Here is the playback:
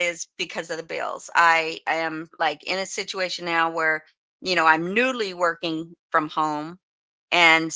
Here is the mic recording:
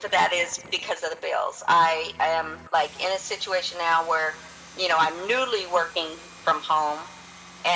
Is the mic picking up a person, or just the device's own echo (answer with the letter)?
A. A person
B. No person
B